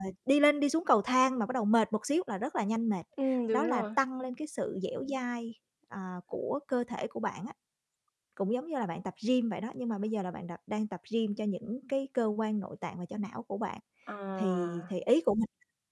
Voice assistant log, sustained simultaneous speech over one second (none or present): none